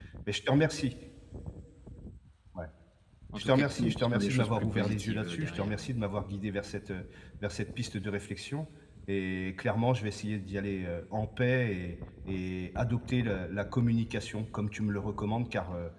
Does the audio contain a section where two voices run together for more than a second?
Yes, from 3.4 s

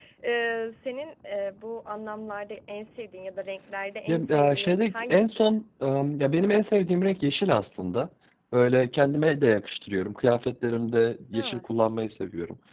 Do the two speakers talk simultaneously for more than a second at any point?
Yes, from 4.1 s

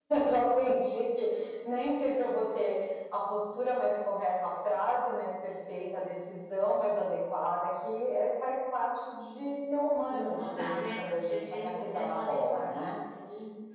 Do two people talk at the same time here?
Yes, from 10.1 s

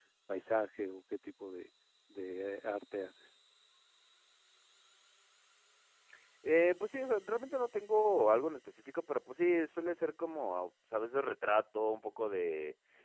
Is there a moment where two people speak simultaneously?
No

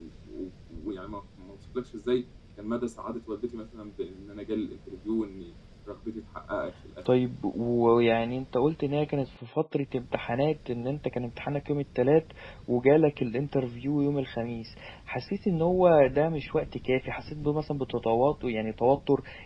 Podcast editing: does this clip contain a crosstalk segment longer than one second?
No

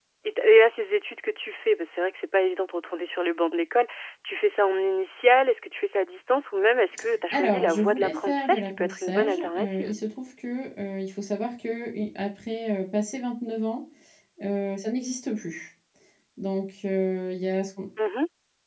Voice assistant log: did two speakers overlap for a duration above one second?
Yes, from 7.3 s

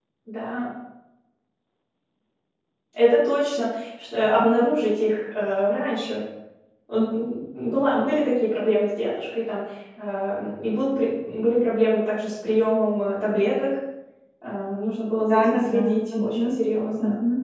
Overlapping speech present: Yes, from 15.3 s

